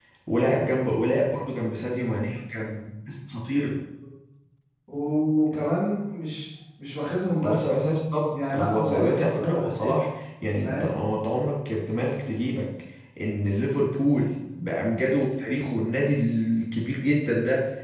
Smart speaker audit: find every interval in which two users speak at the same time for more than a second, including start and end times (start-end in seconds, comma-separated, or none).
8.3-10.0